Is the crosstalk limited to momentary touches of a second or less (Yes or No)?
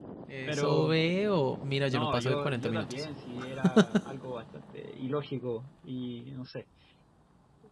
No